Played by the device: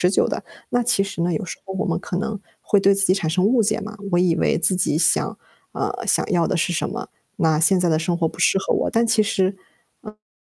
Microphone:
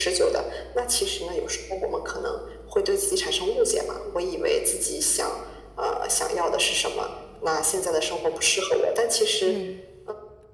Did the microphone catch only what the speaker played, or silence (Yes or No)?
No